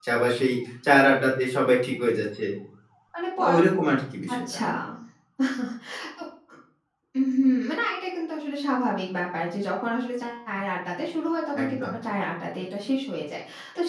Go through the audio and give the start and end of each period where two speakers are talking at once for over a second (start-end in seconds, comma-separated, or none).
none